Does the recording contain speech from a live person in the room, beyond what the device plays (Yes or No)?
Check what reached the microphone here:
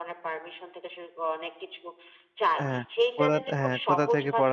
Yes